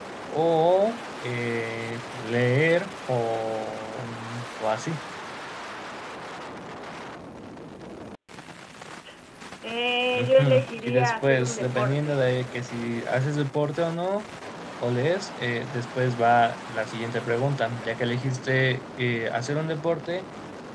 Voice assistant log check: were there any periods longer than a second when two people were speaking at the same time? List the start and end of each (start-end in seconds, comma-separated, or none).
10.2-12.1